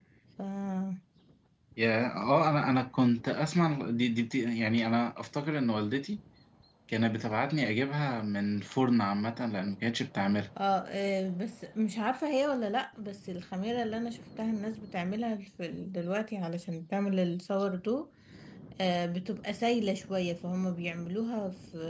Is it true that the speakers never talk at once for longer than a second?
Yes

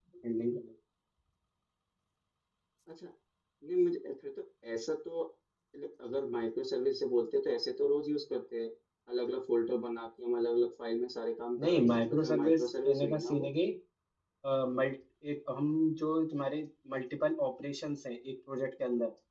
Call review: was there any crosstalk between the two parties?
Yes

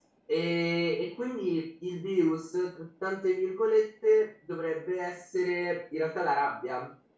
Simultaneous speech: No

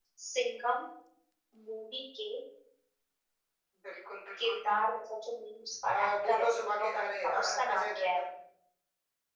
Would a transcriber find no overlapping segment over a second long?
No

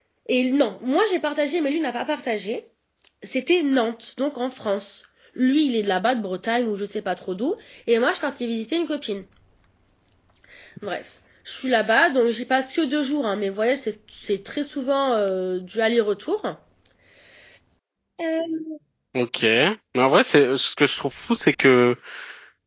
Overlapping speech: No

